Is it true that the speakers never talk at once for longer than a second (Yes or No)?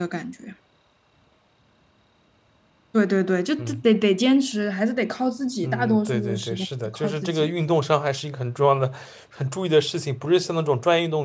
No